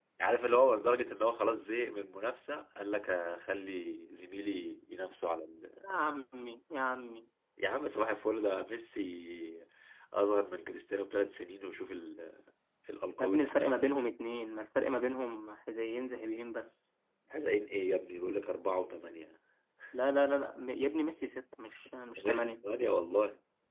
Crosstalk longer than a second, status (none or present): none